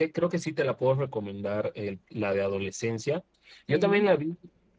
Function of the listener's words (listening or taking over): listening